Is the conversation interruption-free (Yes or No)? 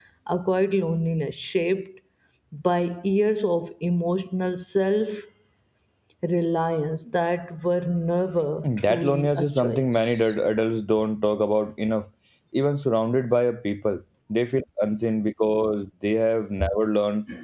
No